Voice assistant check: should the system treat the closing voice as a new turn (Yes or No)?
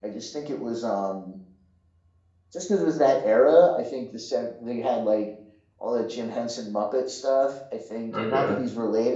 No